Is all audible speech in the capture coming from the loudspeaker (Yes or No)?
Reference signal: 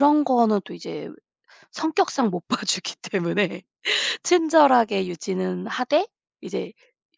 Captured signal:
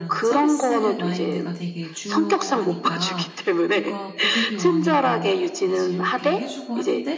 No